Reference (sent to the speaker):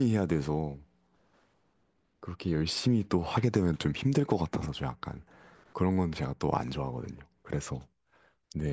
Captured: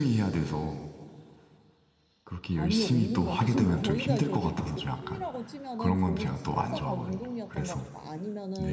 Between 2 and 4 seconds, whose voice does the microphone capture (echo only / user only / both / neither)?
both